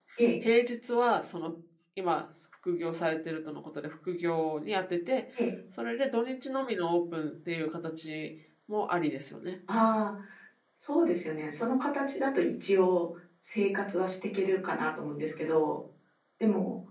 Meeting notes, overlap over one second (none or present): none